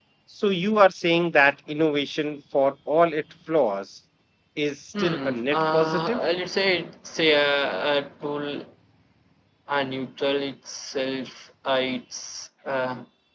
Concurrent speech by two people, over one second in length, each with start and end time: 5.0-6.2

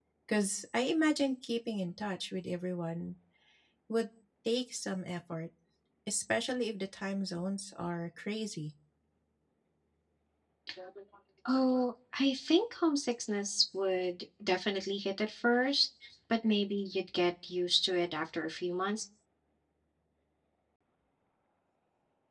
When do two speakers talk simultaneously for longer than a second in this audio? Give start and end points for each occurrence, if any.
none

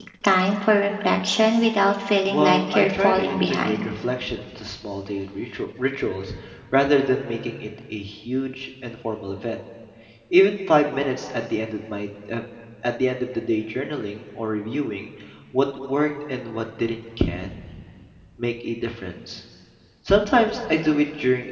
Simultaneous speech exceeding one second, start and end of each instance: 2.3-3.9

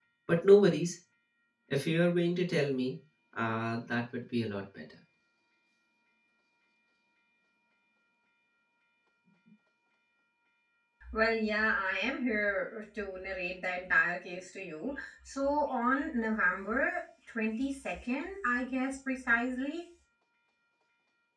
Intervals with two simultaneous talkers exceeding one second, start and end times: none

